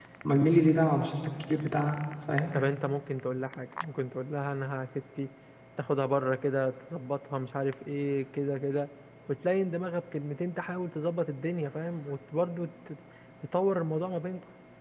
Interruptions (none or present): none